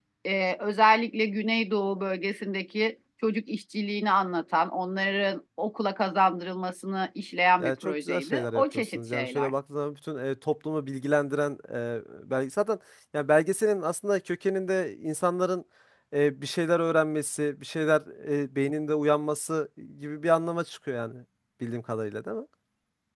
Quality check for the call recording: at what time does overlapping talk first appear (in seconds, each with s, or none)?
7.6 s